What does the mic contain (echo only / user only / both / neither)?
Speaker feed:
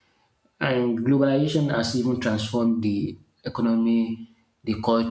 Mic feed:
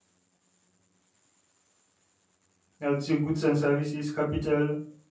user only